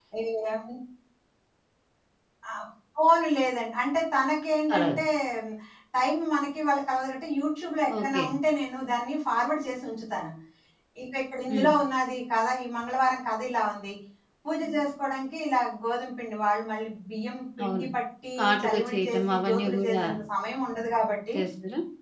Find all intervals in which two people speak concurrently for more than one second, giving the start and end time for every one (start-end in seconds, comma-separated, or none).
18.4-20.0